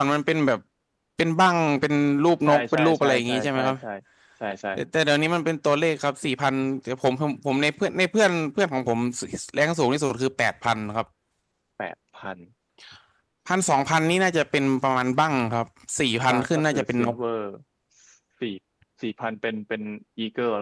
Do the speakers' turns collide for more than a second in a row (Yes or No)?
Yes